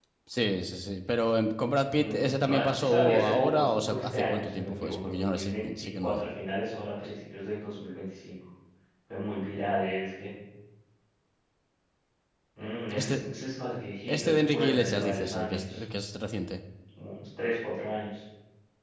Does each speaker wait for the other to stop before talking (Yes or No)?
No